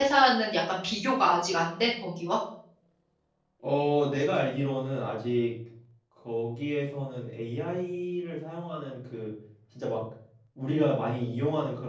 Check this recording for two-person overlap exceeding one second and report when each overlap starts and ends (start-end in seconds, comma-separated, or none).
none